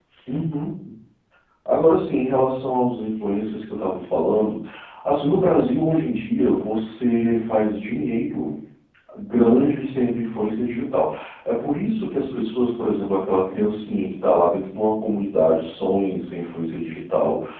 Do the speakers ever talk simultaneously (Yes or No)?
No